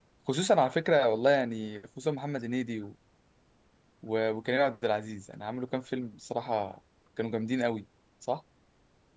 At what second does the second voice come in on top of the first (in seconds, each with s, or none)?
none